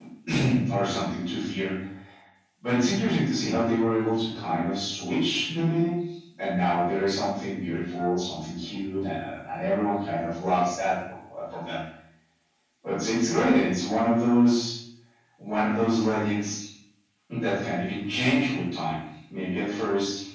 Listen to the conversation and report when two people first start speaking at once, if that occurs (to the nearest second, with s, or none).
none